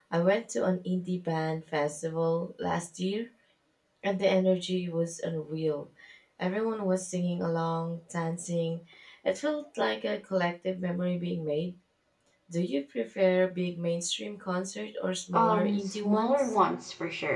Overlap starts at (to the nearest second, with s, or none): 15 s